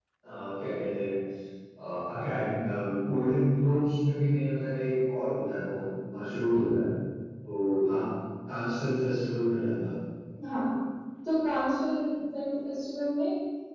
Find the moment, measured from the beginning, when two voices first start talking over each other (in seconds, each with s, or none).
none